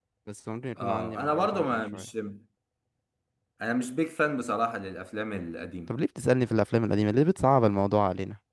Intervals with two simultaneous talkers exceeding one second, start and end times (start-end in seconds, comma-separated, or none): 0.8-2.0